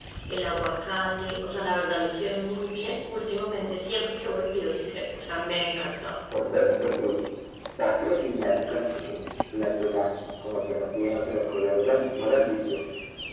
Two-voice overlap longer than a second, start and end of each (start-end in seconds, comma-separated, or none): none